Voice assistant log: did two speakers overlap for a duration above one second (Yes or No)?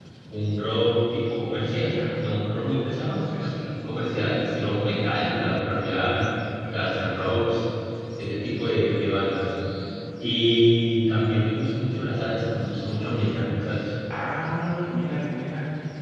No